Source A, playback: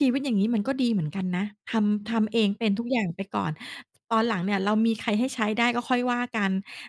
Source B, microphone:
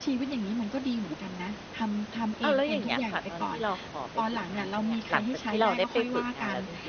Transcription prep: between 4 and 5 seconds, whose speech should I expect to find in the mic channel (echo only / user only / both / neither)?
both